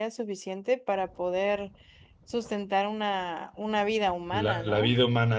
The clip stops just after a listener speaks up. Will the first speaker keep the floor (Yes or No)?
No